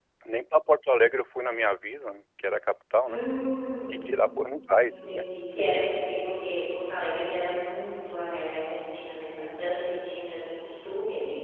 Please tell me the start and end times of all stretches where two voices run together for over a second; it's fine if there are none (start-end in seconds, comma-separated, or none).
none